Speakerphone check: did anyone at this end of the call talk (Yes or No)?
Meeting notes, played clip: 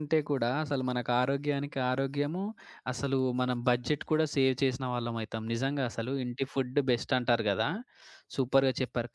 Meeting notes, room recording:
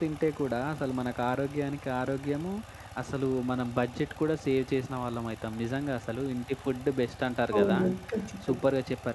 Yes